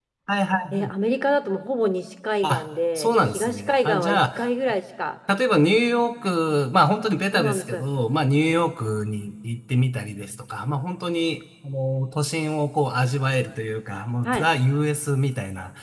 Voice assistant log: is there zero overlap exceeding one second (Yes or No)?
No